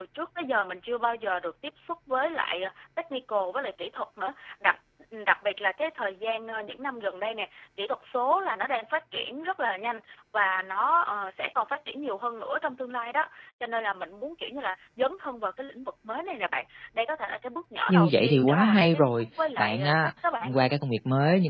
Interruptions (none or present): present